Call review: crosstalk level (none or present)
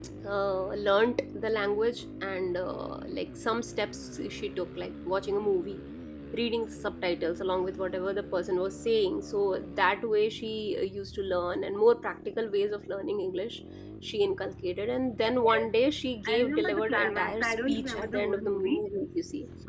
present